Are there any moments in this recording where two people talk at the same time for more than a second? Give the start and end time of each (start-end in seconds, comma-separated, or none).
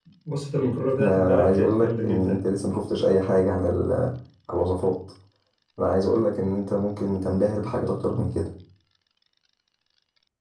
1.0-2.4